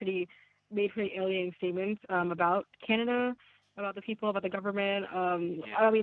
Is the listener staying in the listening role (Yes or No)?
Yes